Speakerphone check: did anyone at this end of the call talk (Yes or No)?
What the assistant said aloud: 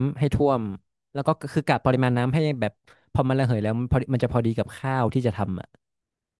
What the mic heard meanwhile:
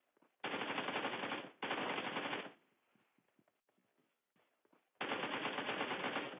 No